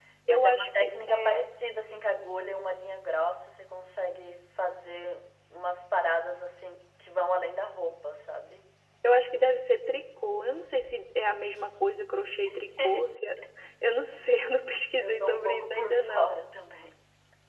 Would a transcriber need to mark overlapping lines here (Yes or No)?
Yes